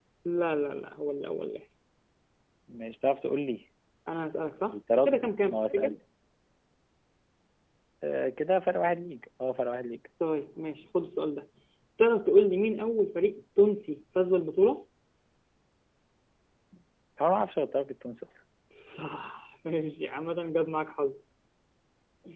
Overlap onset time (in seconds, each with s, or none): 4.7 s